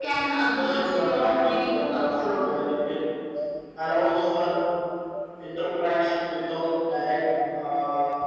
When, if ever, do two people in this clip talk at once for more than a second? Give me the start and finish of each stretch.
0.5-2.4

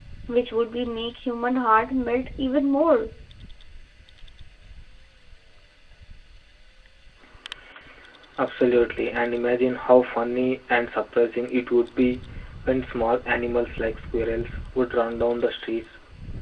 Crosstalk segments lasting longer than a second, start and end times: none

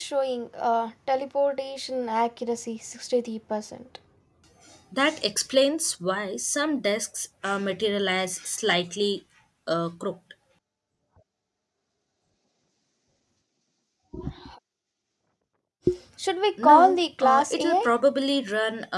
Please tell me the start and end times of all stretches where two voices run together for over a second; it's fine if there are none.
16.6-17.9

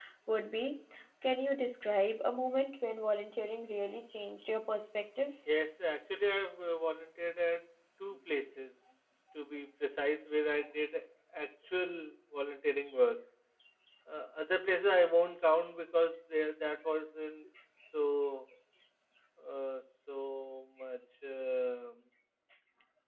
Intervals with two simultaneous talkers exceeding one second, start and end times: none

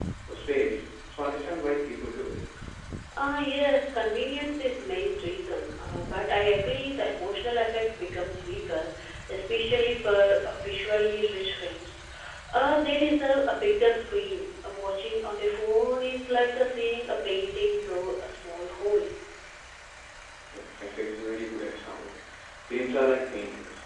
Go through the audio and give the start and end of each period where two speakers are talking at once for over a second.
none

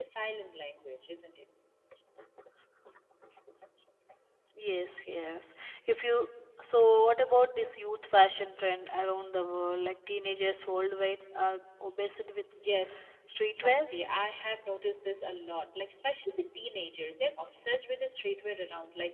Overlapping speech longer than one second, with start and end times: none

